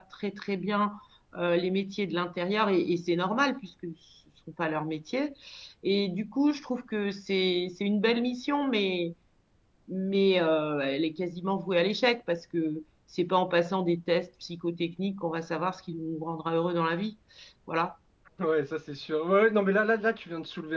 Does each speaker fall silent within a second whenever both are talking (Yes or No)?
Yes